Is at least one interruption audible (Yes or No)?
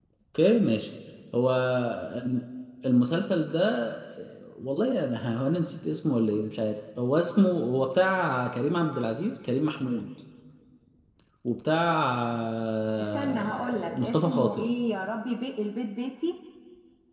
Yes